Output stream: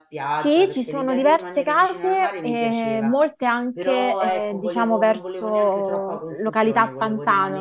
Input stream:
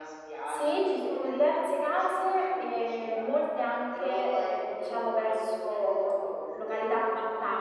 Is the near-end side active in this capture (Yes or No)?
No